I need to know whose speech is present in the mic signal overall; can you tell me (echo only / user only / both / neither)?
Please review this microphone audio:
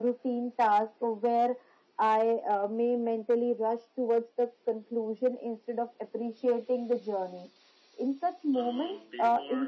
both